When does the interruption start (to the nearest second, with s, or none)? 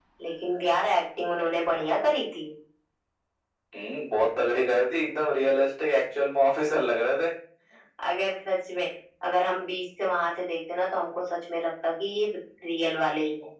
none